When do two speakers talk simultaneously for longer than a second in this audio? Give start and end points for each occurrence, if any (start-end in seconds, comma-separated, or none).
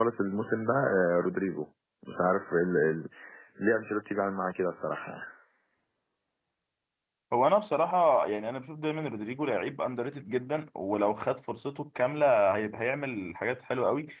none